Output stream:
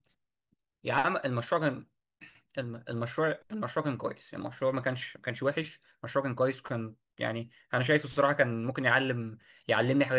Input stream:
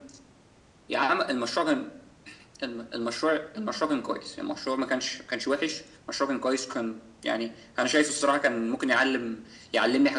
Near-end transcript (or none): none